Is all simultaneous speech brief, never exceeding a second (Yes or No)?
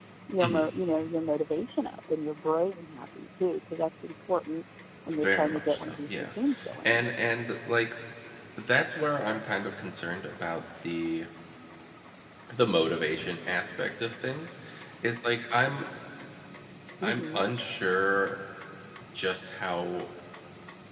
No